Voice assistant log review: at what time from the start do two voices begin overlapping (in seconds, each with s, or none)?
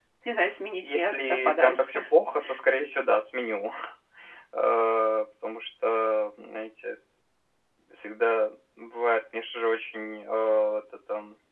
0.8 s